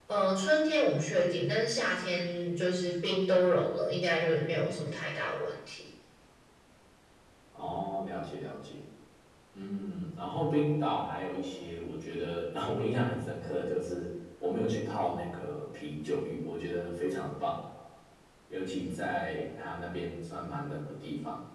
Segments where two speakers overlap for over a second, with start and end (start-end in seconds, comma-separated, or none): none